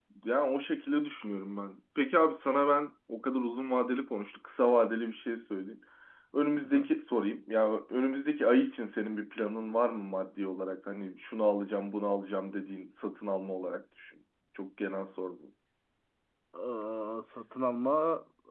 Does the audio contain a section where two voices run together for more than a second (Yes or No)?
No